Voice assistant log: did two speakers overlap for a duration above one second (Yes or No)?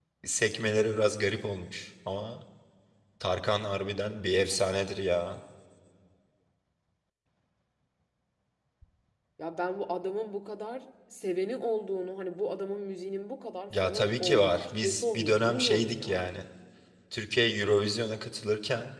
Yes